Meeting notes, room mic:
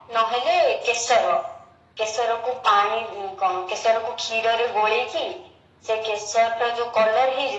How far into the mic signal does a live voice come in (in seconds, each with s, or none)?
none